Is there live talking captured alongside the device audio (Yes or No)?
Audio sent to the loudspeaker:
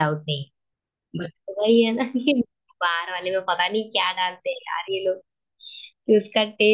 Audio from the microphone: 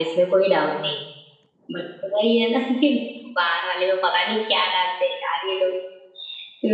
No